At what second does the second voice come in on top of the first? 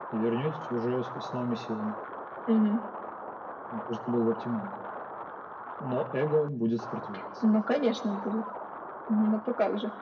none

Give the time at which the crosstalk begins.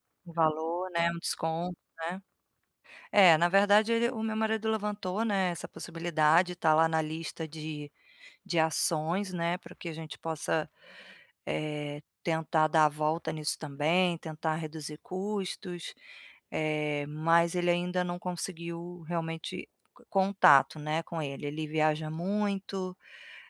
none

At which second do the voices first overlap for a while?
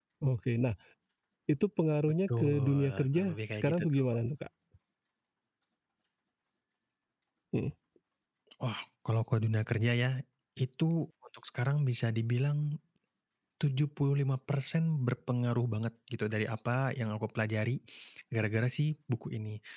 2.3 s

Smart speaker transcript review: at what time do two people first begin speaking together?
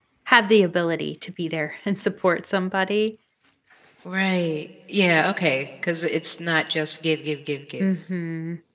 none

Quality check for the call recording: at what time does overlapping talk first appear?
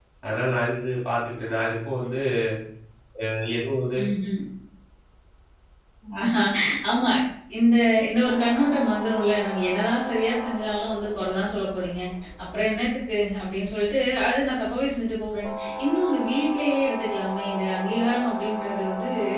none

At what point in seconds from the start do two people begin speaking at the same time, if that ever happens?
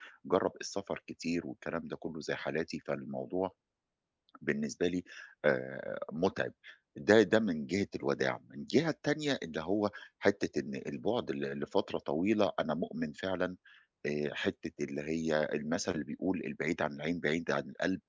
none

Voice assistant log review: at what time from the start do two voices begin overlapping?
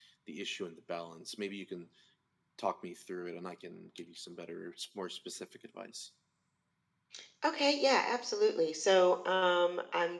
none

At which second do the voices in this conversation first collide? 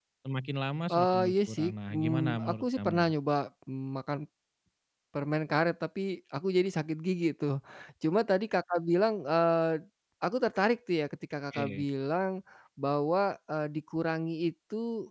0.9 s

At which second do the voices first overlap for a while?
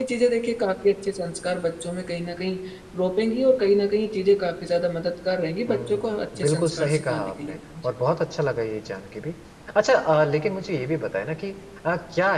5.7 s

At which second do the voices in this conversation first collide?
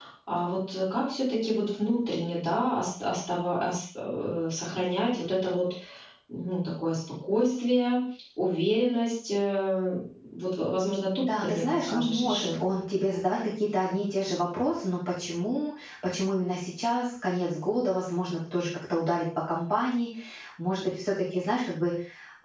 11.2 s

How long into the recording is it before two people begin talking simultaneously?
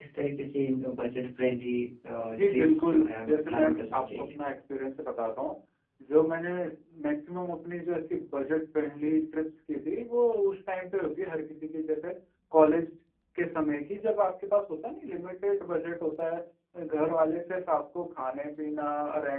2.3 s

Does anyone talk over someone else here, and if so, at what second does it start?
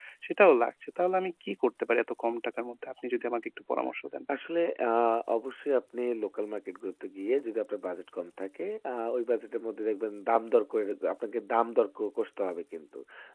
none

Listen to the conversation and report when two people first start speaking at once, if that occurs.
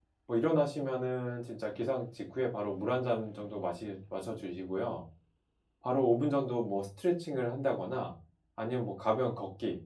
none

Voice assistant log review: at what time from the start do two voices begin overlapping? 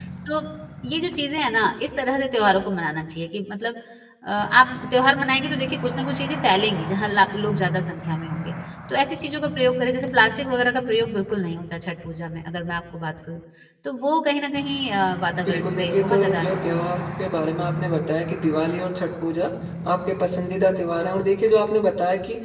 15.3 s

